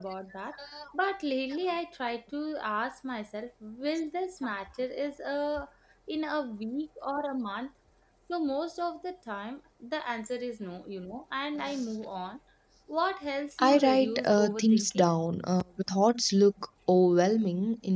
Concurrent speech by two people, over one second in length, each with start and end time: 13.6-15.0

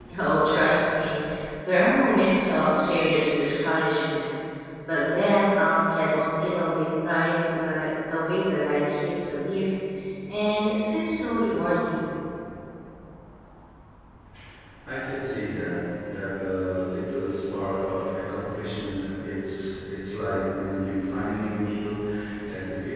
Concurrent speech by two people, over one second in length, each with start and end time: none

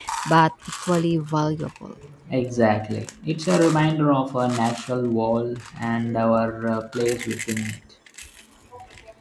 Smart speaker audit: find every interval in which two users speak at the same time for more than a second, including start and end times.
none

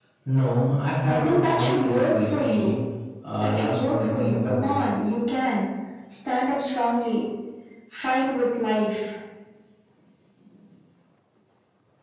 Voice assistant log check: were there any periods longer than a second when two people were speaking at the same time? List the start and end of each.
1.0-2.8, 3.4-4.7

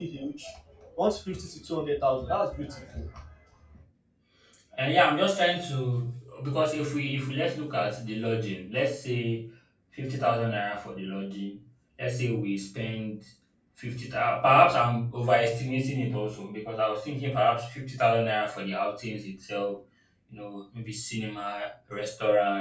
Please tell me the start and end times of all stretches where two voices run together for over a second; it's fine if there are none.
none

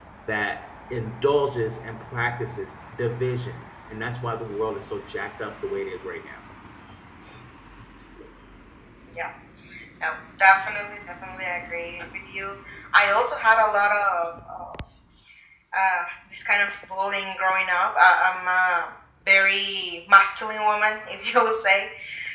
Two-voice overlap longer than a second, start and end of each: none

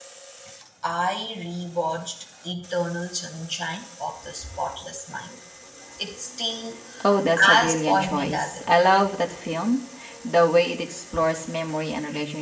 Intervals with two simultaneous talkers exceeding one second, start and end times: 7.4-8.8

